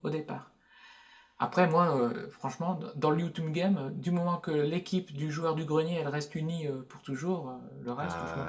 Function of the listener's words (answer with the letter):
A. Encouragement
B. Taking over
B